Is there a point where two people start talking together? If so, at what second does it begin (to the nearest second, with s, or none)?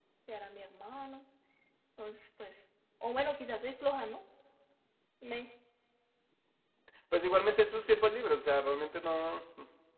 none